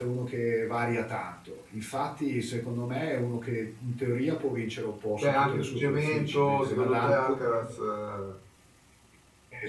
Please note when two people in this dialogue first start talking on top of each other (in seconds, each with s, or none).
5.2 s